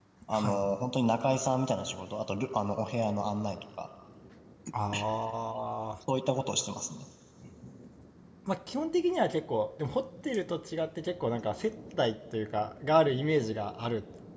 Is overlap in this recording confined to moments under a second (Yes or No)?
Yes